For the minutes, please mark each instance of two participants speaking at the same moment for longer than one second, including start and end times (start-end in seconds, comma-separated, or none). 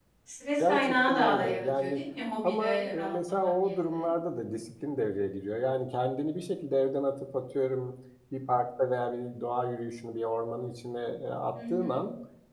0.6-2.0, 2.4-4.1